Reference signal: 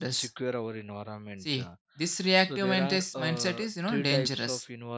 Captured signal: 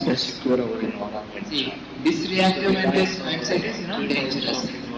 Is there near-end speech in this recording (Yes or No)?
No